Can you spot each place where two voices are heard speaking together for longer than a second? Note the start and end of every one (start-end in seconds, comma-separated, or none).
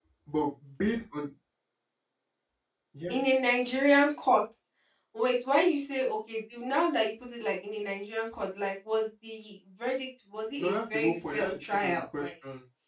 10.6-12.3